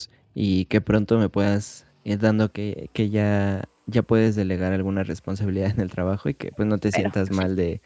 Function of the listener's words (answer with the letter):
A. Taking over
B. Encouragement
B